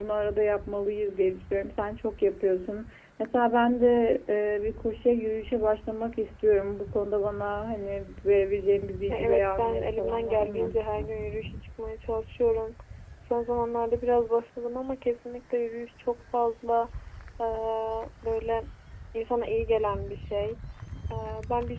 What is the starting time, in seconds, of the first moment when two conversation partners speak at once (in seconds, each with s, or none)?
9.1 s